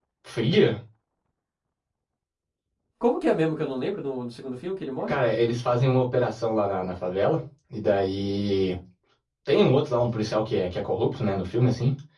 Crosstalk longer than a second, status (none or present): none